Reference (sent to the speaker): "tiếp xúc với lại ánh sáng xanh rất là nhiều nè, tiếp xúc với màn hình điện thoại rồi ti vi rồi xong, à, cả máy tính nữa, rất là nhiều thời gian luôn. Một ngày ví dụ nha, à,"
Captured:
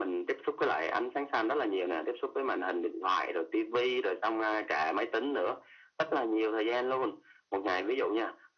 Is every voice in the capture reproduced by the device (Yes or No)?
Yes